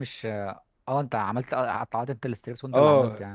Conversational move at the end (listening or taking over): taking over